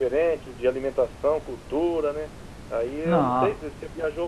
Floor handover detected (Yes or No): No